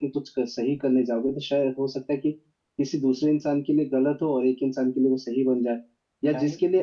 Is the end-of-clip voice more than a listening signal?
No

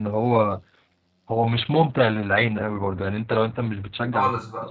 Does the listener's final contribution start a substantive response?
No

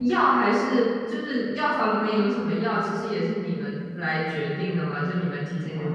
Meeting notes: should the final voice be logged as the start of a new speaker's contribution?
No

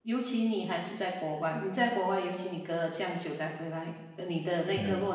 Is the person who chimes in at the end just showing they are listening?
Yes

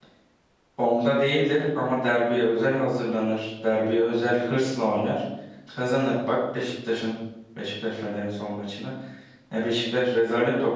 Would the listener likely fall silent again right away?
Yes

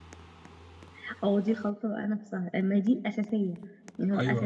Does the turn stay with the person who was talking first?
Yes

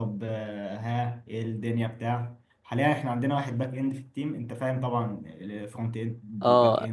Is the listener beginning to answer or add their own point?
Yes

